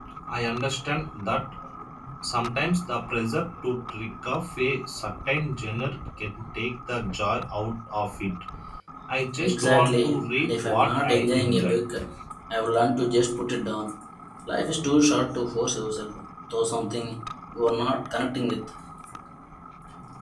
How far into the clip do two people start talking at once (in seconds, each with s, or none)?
9.5 s